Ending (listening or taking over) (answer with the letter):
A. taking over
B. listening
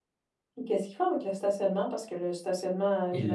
A